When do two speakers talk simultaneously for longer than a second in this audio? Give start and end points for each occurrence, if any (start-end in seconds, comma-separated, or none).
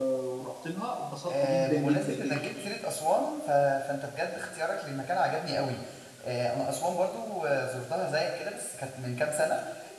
1.3-2.7